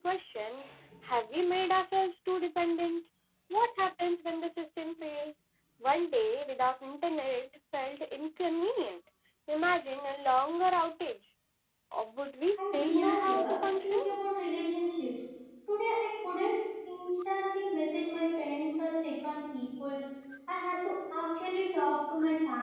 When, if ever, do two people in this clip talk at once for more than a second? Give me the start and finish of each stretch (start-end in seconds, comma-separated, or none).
12.6-14.0